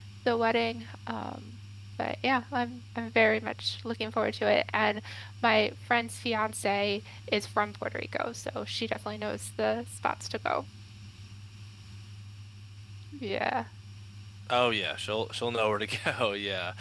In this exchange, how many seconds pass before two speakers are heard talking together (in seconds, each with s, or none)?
none